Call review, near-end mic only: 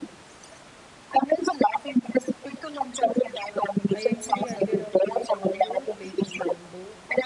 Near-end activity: present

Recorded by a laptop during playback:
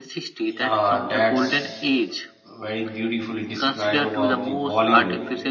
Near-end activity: present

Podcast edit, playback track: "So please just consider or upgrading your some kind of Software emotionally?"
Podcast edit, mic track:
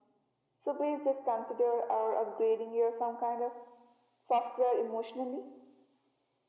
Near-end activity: none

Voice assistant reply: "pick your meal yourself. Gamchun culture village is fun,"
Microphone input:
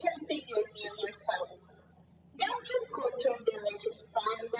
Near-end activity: none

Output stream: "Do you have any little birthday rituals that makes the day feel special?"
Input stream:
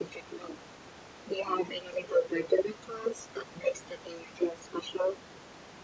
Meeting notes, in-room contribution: none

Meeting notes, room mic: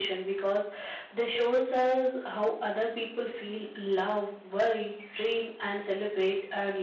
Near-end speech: none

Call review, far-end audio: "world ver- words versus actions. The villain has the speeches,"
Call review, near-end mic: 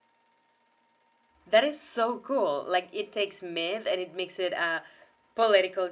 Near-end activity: present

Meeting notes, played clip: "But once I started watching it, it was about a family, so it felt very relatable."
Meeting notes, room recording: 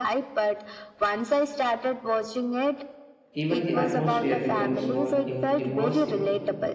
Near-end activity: present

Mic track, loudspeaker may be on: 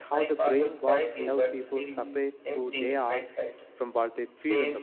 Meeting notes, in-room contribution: present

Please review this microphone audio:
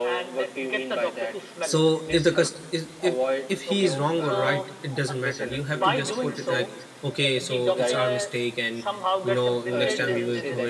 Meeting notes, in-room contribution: present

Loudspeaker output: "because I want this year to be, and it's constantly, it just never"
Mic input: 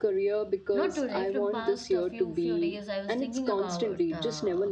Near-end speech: present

